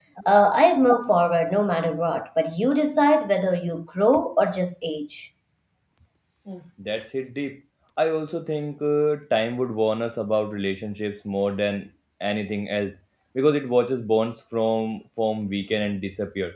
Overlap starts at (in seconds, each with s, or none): none